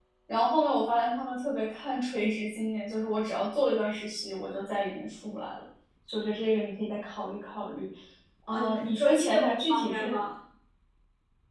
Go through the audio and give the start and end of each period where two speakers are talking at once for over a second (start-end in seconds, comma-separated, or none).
8.5-10.2